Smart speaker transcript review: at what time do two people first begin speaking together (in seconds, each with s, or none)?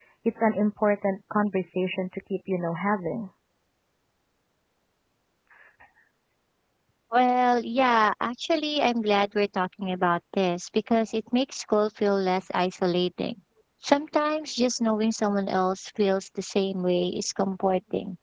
none